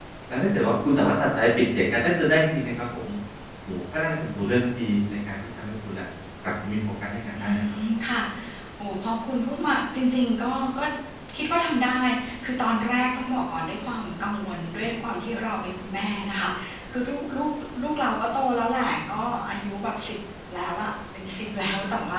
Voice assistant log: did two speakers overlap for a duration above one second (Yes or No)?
No